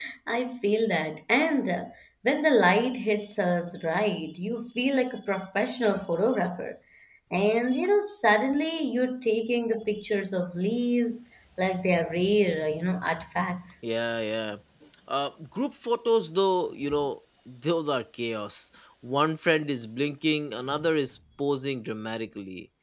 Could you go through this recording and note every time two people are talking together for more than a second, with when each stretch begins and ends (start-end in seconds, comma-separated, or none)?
none